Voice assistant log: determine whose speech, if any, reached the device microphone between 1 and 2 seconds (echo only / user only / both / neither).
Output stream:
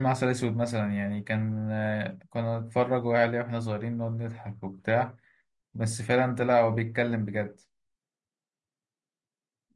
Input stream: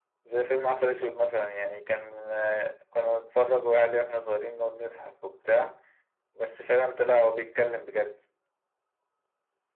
echo only